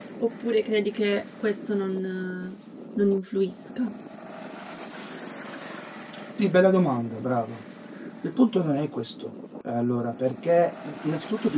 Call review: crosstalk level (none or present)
none